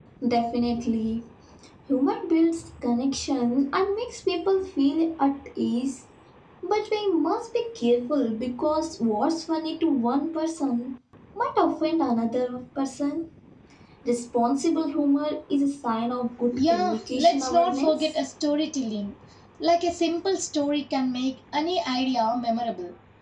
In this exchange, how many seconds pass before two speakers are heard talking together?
16.5 s

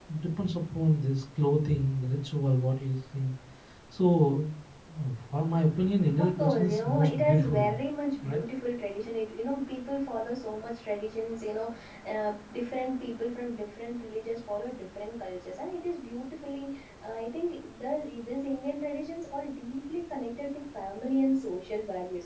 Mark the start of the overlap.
6.2 s

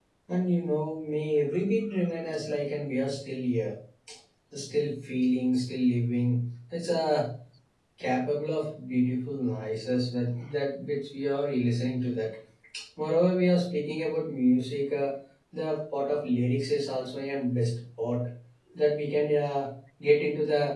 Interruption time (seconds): none

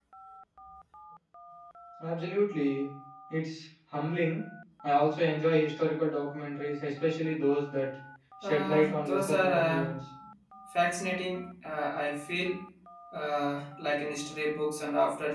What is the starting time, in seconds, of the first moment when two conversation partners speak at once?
8.4 s

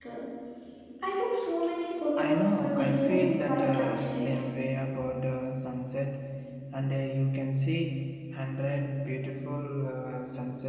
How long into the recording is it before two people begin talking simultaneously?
2.2 s

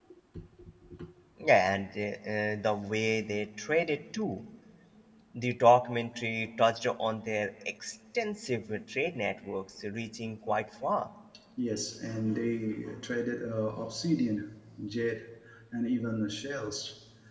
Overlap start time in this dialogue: none

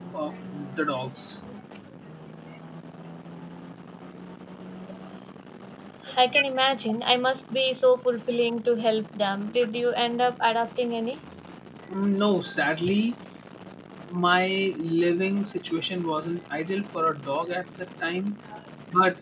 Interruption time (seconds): none

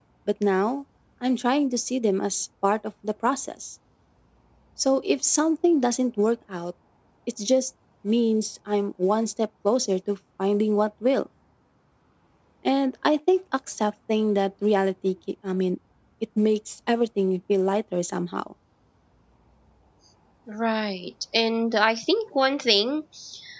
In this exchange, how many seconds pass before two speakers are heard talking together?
none

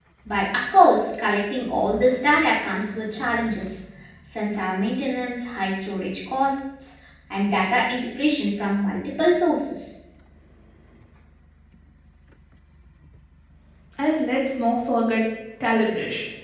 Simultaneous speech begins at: none

